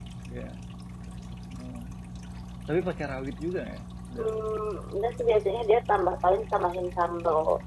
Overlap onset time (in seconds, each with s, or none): none